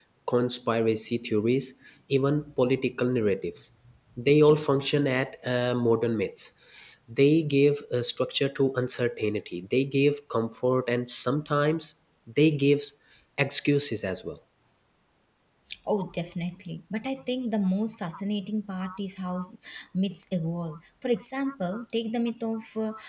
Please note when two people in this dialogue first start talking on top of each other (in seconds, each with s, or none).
none